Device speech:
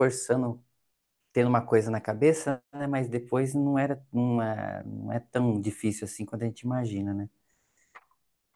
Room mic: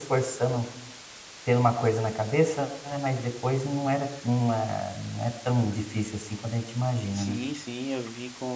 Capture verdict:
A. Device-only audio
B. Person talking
B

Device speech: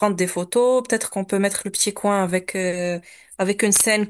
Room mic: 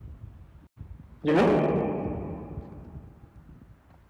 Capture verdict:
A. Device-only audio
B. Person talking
B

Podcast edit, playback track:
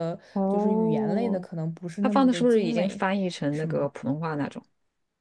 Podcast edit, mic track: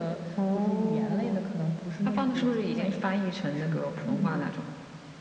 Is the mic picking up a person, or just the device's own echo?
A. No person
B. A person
B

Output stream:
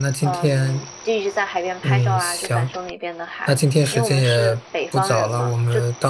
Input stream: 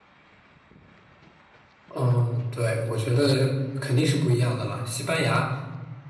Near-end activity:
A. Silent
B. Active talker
B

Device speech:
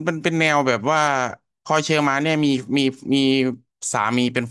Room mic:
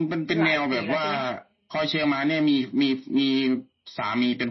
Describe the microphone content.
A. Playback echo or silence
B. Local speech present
B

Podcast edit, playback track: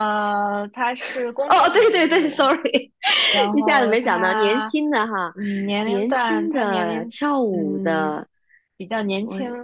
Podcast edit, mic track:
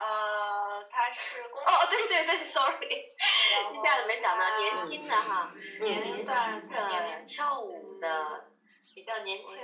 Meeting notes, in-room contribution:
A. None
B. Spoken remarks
B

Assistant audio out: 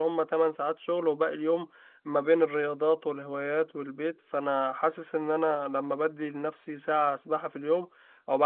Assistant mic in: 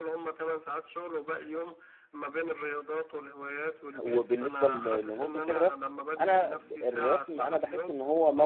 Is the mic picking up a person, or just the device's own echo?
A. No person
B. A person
B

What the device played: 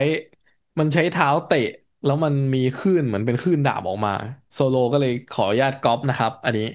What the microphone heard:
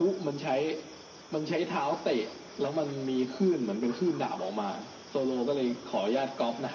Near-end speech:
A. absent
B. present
A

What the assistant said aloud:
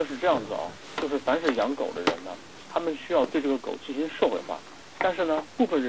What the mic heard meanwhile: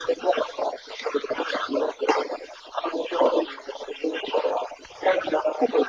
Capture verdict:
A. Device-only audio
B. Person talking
A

